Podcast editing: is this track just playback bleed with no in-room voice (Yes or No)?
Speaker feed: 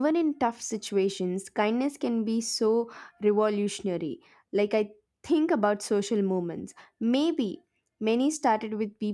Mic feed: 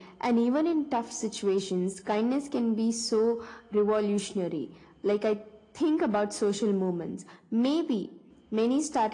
Yes